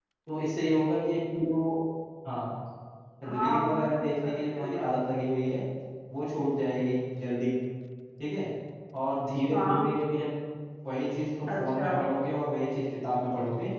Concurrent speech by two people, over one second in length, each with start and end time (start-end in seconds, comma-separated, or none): 3.2-4.8